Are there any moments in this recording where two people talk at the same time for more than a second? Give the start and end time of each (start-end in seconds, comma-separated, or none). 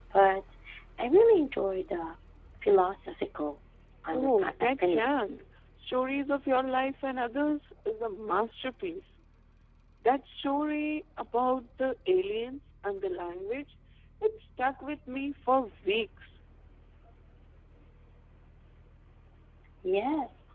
4.1-5.4